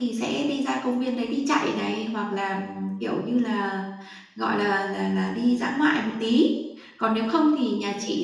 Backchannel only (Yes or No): Yes